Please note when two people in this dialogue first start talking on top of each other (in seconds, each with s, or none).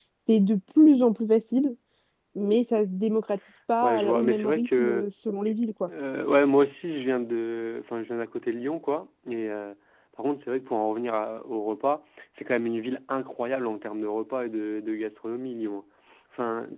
3.8 s